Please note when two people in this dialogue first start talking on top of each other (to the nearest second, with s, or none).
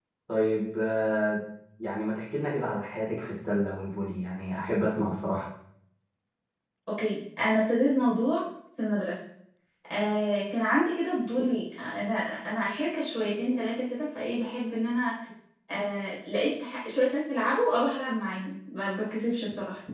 none